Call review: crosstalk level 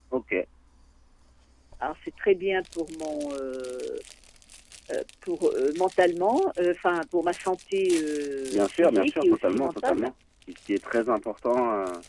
present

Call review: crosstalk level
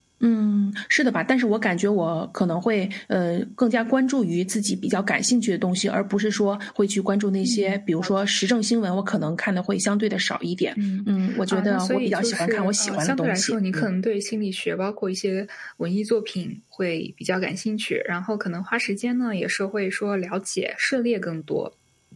present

